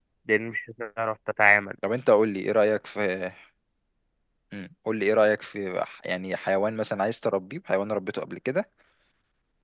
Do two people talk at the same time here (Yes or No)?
No